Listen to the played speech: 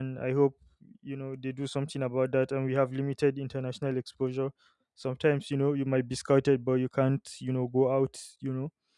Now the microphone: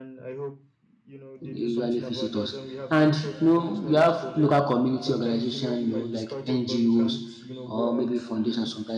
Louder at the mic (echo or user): user